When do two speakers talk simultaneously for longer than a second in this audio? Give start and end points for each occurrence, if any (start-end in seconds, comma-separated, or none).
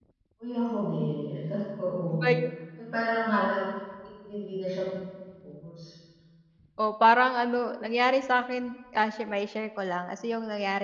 none